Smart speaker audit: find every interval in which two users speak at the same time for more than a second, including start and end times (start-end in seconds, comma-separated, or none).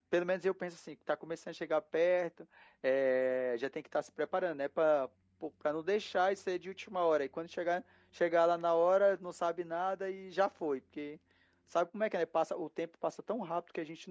none